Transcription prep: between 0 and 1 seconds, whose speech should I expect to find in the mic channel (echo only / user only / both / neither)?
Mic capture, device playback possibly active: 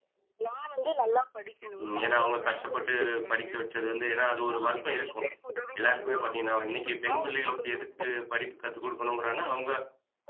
echo only